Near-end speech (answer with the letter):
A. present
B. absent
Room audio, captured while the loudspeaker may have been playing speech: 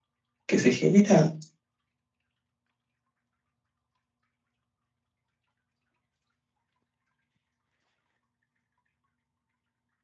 A